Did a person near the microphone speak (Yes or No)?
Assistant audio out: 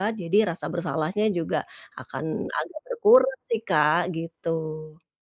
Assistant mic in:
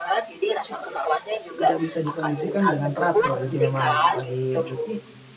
Yes